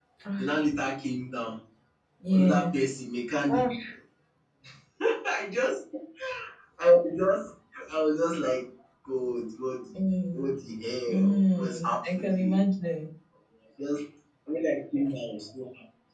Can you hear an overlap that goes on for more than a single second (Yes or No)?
Yes